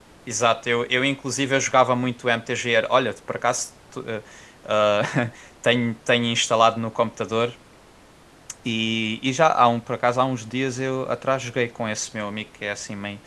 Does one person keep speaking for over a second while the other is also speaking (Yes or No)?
No